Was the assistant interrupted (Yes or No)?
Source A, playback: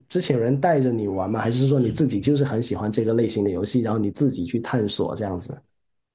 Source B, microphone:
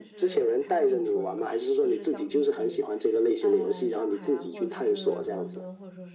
Yes